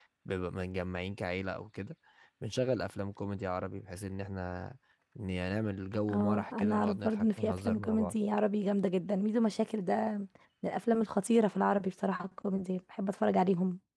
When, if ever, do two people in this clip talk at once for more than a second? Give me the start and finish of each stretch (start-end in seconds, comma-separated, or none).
6.1-8.2